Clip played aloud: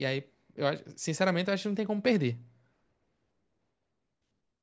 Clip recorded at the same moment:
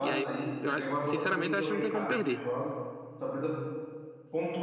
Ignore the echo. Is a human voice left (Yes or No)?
Yes